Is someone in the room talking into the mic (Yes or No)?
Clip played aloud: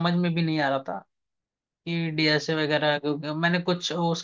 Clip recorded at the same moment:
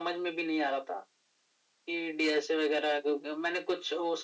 No